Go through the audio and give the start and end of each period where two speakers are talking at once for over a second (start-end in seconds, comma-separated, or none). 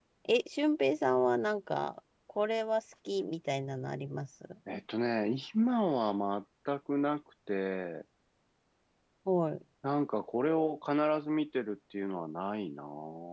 none